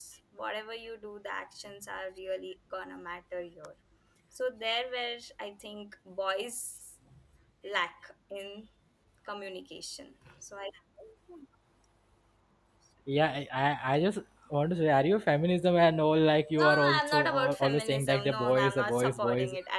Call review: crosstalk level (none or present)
present